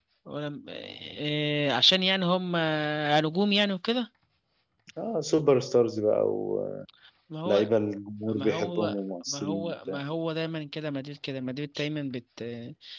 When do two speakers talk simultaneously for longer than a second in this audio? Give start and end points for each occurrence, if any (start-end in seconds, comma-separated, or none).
8.3-9.7